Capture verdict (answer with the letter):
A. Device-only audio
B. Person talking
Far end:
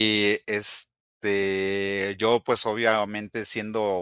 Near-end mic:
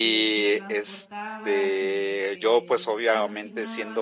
B